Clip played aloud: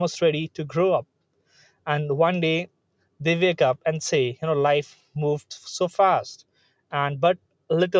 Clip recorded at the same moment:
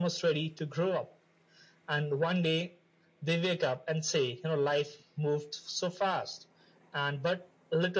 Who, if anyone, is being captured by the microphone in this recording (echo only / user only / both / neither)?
echo only